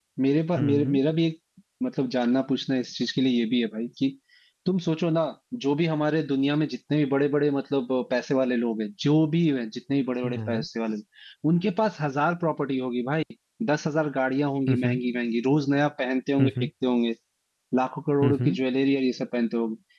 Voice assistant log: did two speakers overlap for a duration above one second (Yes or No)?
No